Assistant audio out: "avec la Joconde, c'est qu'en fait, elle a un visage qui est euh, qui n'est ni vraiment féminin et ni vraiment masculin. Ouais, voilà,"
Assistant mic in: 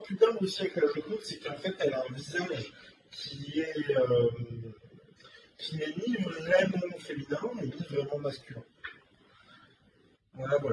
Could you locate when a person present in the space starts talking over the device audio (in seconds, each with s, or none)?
none